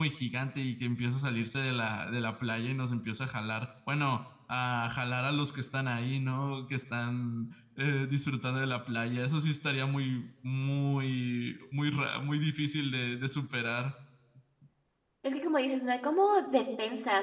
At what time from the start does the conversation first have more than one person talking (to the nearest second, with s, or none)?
none